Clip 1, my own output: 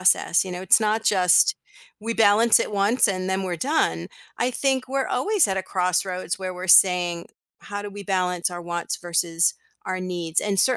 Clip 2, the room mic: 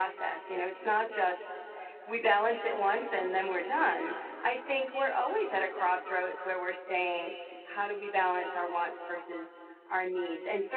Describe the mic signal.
echo only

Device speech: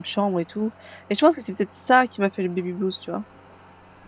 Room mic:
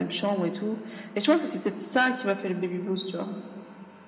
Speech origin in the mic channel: echo only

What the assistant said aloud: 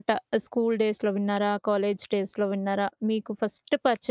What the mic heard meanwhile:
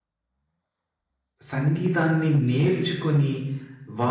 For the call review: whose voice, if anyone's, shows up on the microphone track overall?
user only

